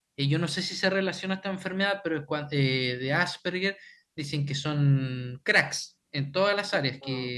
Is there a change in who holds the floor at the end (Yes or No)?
No